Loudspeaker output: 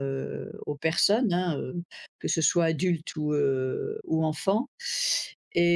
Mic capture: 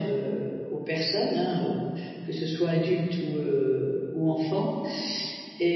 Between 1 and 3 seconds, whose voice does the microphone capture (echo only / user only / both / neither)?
echo only